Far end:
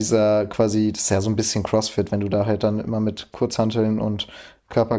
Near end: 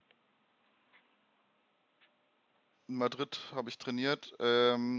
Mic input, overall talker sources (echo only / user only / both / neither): user only